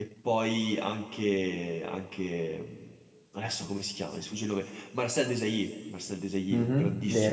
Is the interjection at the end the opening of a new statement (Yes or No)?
Yes